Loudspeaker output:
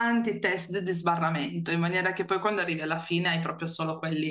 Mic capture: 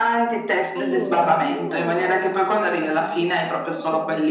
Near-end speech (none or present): present